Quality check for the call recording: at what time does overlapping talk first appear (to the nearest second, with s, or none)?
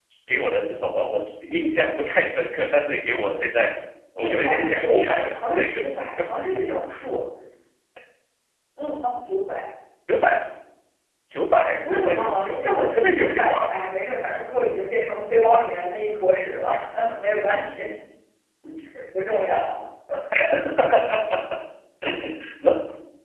4 s